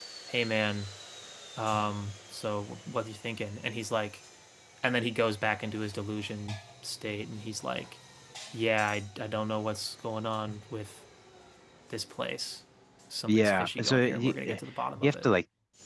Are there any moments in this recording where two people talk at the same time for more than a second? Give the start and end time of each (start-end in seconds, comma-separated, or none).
13.3-14.6